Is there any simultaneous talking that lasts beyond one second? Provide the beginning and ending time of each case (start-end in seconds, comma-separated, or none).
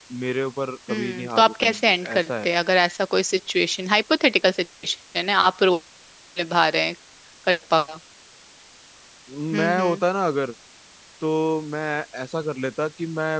0.9-2.5